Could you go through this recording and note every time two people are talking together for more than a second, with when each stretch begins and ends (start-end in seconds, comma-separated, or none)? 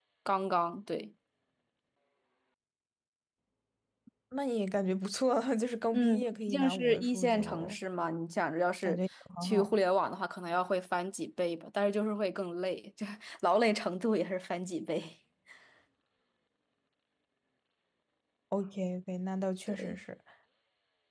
5.9-7.8